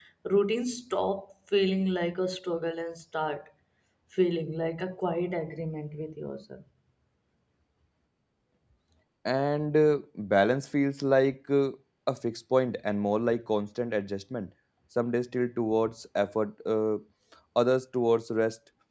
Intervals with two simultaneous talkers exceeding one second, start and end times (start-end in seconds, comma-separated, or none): none